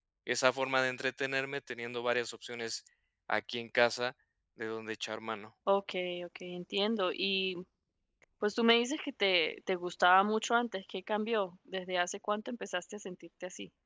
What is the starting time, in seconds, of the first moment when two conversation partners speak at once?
none

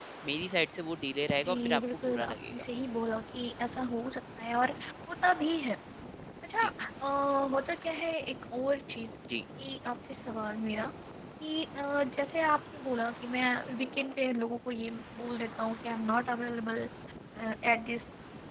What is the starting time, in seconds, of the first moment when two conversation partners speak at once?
1 s

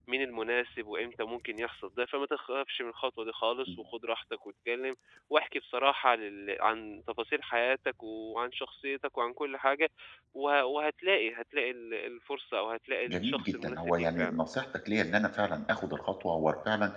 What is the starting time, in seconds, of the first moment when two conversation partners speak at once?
13 s

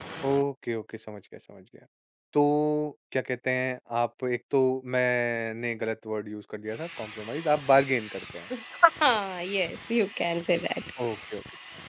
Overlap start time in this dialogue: none

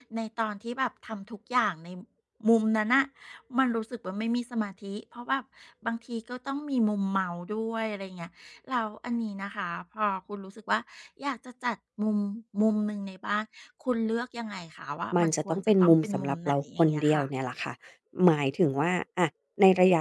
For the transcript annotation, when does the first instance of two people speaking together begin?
15 s

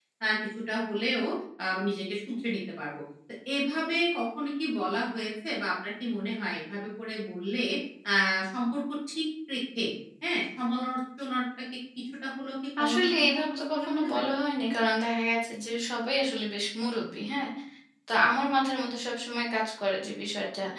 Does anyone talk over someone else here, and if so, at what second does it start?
13 s

